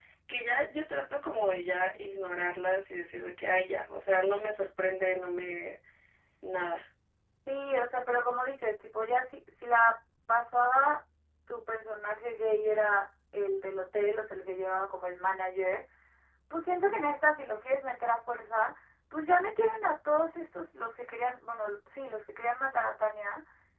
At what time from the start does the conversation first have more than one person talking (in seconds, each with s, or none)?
none